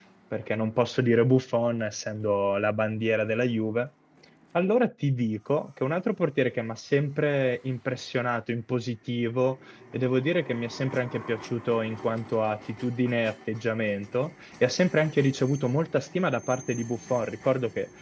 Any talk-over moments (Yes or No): No